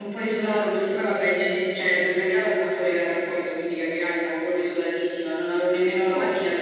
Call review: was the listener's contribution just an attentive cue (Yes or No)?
Yes